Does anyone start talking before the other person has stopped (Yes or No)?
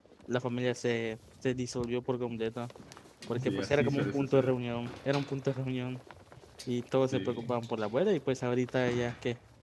Yes